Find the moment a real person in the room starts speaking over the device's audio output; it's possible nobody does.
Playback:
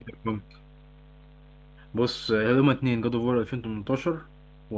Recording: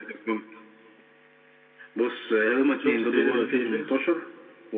3 s

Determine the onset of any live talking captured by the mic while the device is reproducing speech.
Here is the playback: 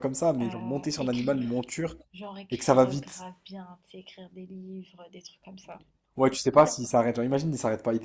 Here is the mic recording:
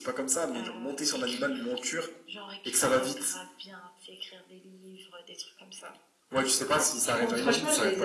7 s

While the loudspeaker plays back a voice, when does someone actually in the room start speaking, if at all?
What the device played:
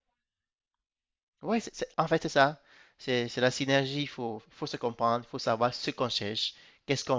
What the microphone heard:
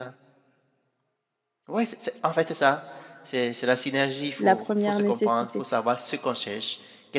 4 s

